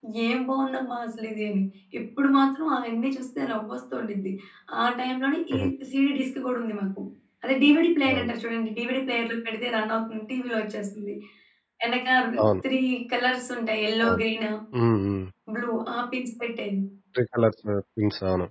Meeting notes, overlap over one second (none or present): none